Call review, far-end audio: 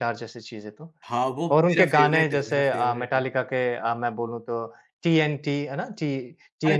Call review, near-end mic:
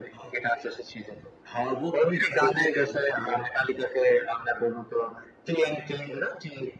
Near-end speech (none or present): none